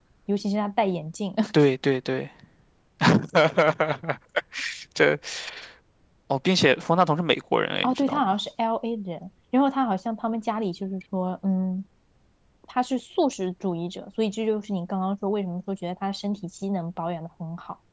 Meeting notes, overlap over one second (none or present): none